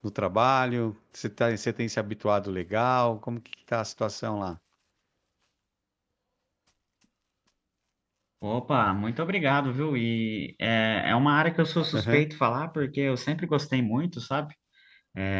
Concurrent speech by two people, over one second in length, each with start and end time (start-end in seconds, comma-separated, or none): none